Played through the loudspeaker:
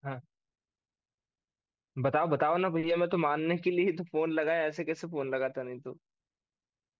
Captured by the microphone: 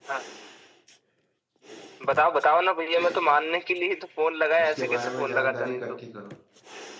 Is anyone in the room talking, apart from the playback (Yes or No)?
Yes